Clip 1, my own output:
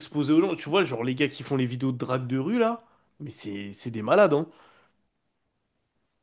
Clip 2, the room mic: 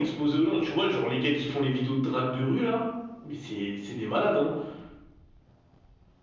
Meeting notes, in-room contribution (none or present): none